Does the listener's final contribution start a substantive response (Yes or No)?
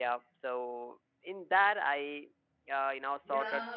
Yes